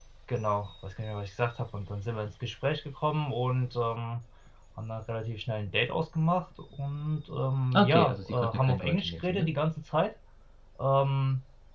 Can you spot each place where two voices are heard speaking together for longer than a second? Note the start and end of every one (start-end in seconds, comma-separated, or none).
7.7-9.5